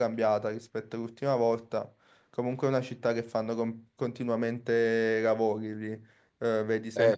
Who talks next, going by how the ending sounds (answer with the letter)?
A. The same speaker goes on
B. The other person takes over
A